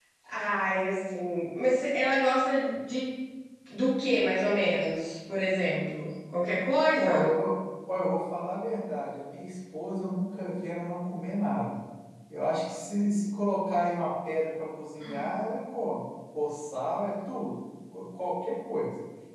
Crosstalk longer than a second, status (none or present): none